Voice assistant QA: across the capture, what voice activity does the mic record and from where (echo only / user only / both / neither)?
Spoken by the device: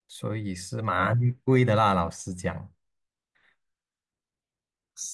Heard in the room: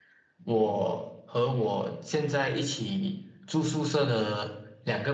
user only